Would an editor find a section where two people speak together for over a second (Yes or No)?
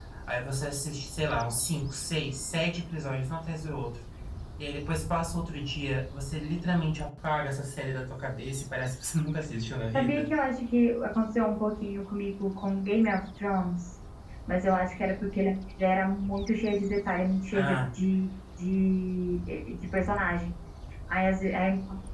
No